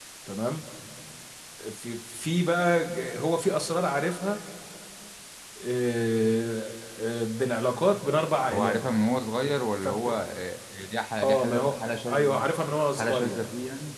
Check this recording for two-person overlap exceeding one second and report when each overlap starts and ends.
11.2-12.5

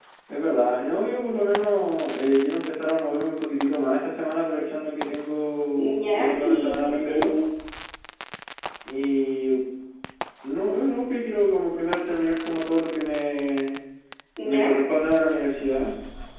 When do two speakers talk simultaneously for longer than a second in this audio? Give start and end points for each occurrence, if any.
5.8-7.2

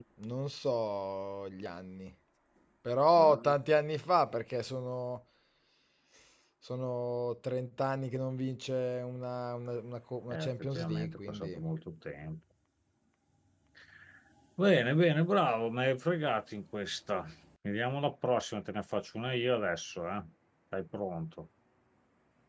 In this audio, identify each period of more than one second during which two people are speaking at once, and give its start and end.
10.3-11.6

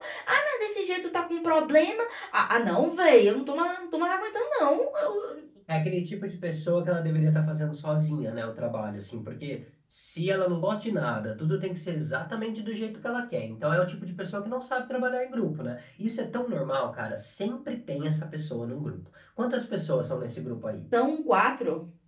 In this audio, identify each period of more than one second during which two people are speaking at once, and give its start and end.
none

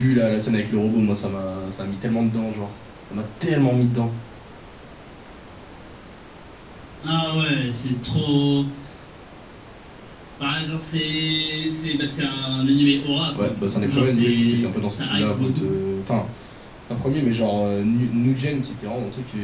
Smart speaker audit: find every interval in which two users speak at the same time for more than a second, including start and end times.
13.4-15.7

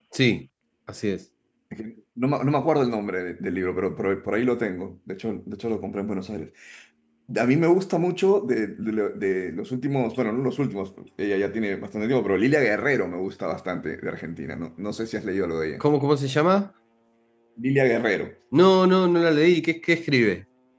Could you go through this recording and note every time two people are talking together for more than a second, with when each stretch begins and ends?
none

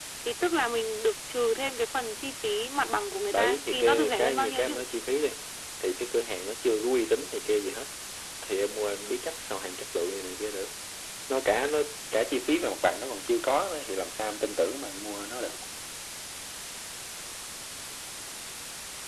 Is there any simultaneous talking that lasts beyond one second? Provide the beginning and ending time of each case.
3.3-4.8

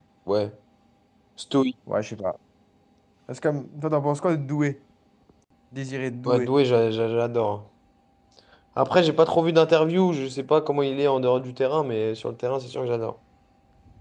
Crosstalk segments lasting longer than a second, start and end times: none

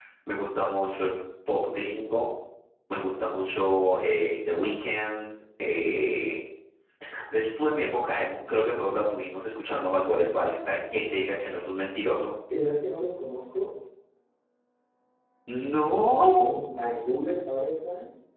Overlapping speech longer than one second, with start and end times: none

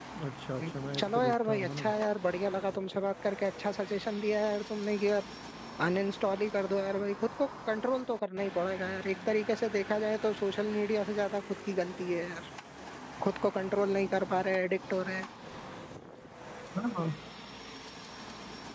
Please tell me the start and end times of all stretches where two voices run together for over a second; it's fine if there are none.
0.6-1.9

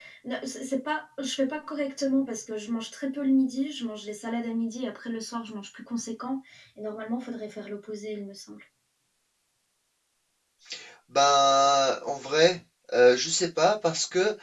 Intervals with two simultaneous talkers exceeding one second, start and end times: none

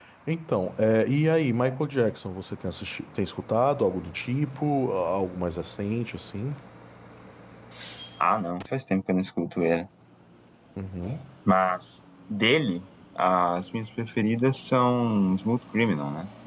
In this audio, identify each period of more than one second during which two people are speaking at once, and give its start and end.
none

